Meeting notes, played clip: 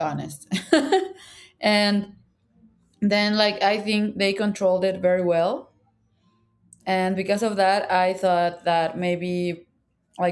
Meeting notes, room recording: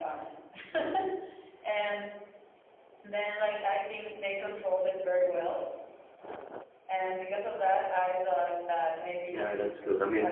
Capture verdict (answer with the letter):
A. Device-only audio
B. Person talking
B